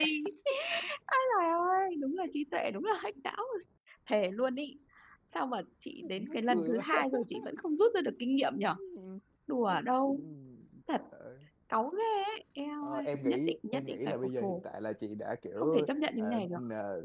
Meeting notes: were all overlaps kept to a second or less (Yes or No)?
No